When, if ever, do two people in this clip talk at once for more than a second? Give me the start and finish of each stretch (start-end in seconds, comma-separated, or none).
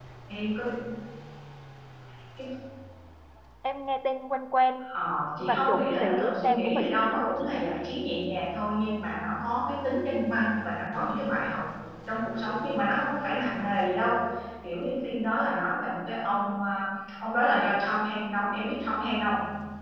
5.4-7.4